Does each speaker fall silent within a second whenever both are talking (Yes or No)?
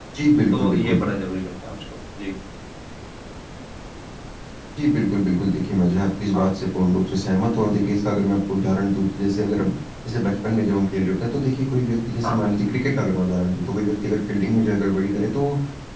Yes